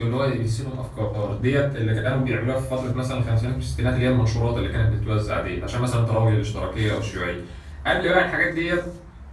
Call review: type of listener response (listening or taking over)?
listening